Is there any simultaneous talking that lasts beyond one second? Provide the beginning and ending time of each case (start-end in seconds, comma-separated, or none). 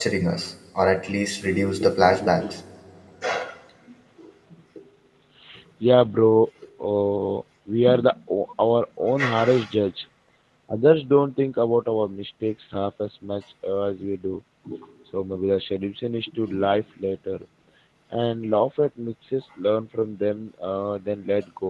none